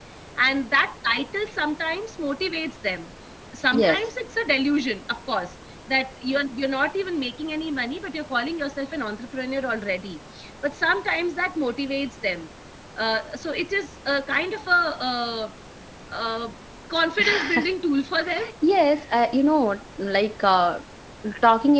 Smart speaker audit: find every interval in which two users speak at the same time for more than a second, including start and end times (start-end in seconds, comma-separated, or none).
none